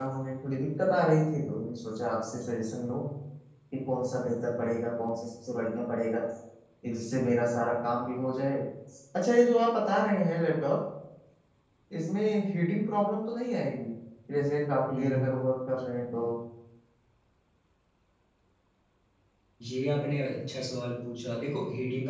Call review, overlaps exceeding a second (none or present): none